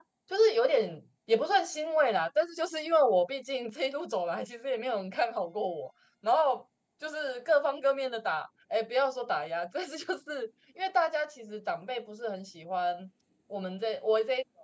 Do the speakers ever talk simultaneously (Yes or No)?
No